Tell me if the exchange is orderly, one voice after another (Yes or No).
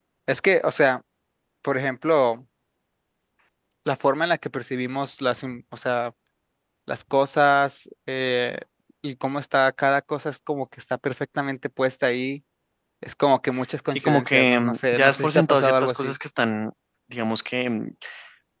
No